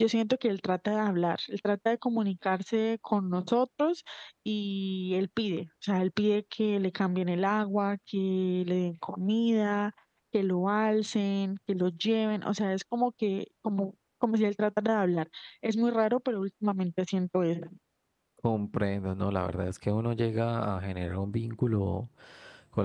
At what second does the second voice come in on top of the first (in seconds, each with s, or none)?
none